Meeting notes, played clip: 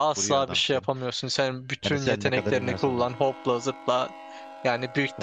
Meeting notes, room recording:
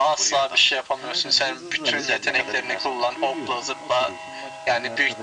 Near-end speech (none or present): present